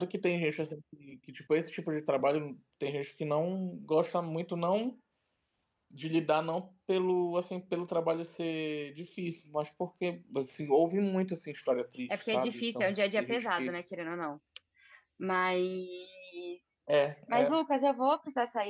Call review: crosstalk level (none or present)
present